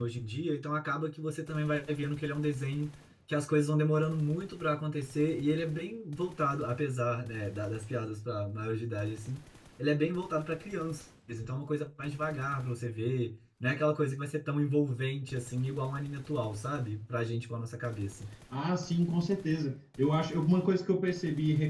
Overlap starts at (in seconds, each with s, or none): none